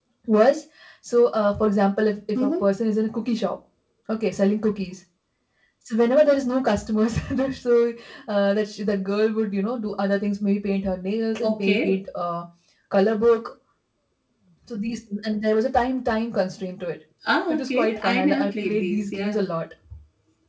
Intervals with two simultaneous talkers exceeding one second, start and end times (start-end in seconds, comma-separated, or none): 17.5-19.4